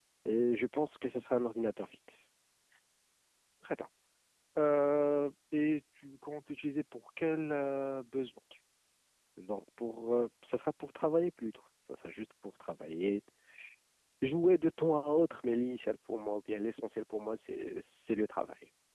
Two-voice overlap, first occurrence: none

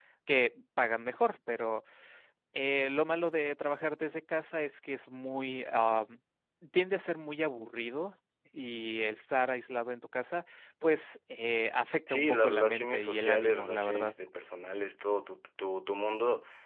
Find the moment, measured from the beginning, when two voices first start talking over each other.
12 s

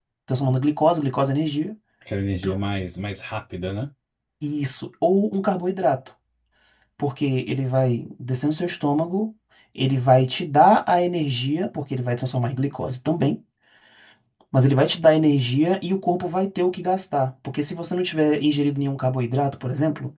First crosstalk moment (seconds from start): none

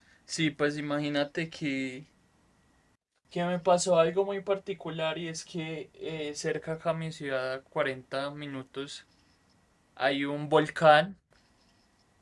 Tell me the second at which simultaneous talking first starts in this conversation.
none

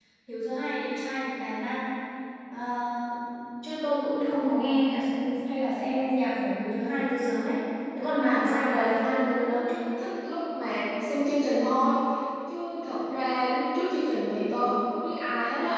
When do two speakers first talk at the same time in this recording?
8 s

